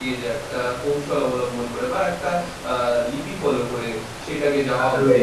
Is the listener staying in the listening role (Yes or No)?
Yes